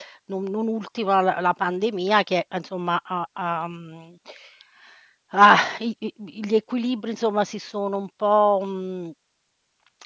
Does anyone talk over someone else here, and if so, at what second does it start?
none

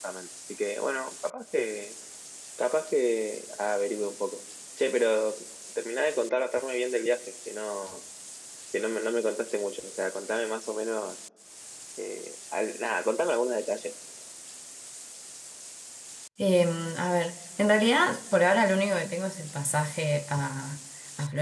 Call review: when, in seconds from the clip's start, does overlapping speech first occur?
none

